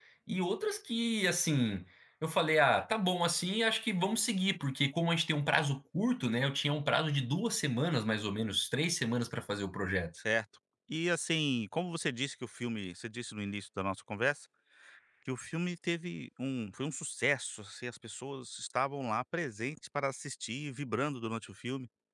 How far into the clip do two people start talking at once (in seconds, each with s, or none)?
none